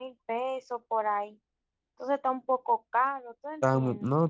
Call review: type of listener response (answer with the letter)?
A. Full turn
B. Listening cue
A